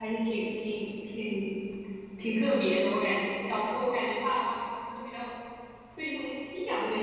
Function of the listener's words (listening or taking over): listening